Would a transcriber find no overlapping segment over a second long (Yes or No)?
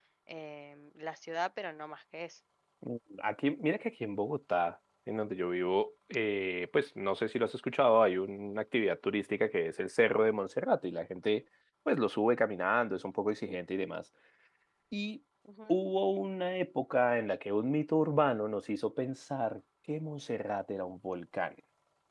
Yes